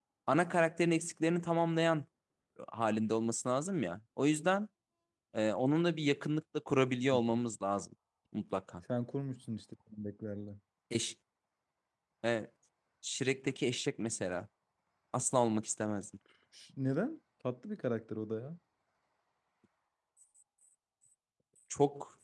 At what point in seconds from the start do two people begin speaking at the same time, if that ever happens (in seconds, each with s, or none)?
none